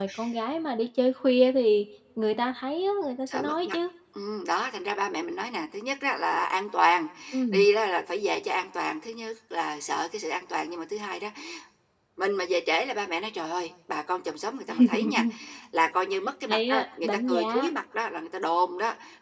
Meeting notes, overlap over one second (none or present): present